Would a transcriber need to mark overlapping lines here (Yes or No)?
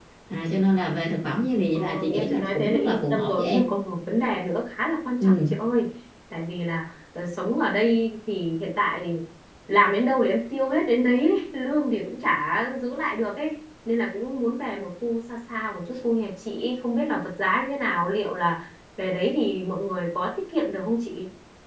Yes